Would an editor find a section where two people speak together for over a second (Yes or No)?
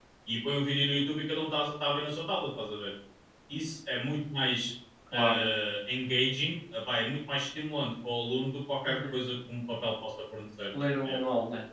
No